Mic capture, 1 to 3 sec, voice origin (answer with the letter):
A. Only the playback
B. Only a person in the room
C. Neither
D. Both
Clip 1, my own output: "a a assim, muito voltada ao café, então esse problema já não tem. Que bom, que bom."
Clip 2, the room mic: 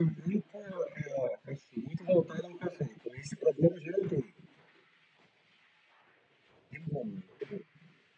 A